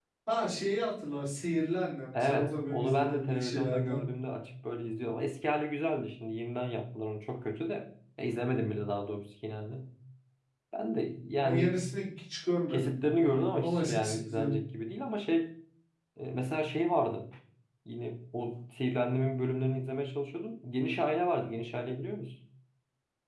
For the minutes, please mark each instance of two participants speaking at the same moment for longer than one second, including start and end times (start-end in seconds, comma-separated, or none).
2.1-4.0, 12.7-14.6